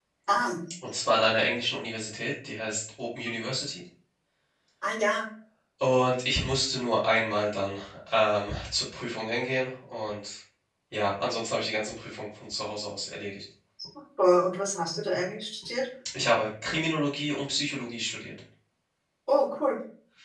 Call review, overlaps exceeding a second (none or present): none